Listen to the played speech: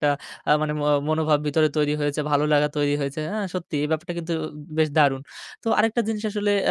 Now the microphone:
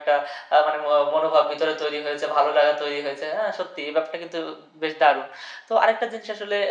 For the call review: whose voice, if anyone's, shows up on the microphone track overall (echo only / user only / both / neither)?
echo only